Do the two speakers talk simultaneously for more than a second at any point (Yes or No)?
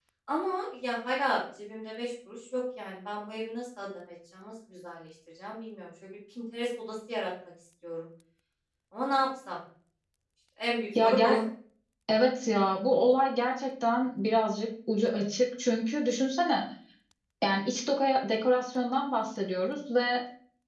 No